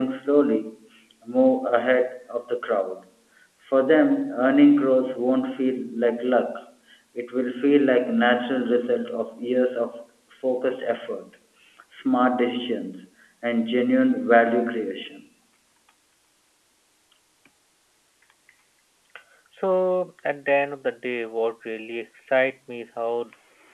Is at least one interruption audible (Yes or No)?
No